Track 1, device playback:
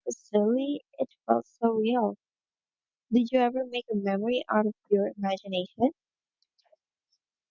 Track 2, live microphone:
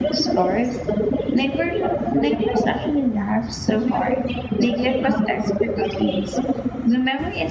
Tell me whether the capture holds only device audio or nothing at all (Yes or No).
No